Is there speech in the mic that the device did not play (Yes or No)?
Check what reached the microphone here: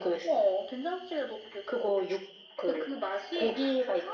No